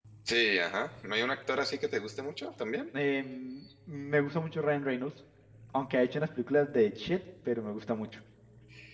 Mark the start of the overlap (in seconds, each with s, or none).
none